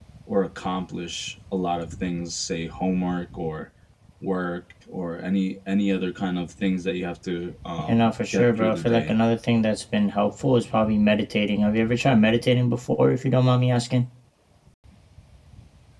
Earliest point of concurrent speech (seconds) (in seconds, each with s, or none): 7.9 s